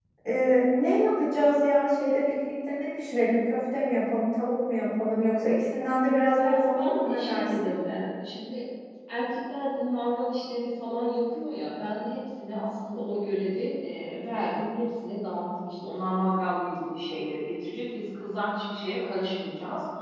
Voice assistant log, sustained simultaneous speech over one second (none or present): present